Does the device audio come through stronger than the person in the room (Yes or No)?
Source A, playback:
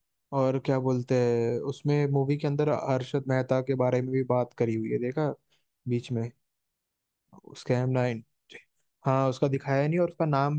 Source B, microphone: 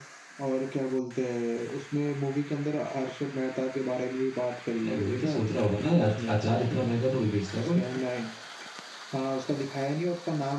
No